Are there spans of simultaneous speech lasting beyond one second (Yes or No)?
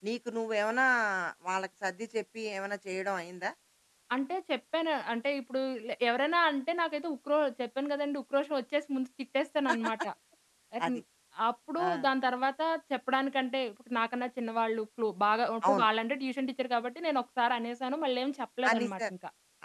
No